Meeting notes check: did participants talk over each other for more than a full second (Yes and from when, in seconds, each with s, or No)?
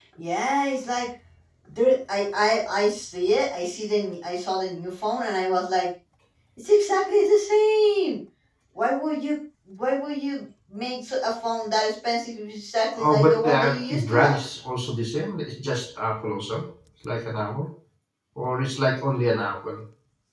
Yes, from 13.0 s